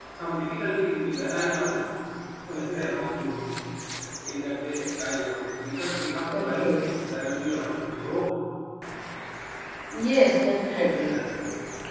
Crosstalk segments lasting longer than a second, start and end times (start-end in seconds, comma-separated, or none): none